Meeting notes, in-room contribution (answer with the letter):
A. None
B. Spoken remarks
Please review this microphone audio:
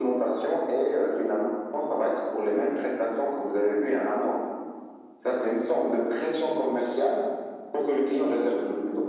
A